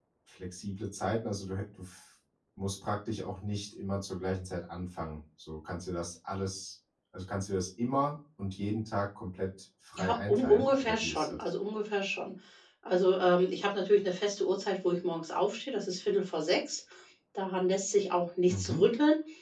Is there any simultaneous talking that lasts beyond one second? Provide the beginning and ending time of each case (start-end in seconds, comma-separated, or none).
10.0-11.5